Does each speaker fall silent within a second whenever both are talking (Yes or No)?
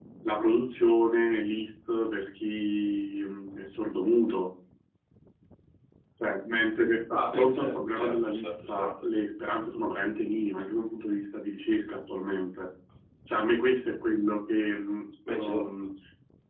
No